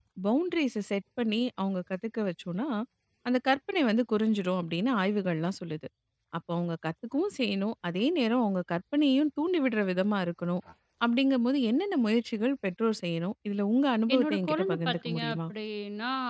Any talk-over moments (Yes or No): Yes